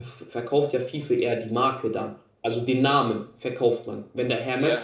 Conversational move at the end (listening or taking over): taking over